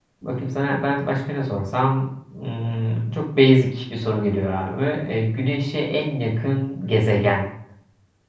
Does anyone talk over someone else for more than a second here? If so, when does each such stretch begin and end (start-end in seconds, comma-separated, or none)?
none